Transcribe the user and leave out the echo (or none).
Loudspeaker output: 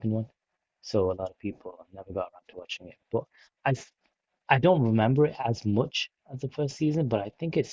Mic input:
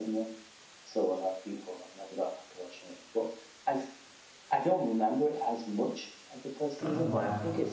I don't know why.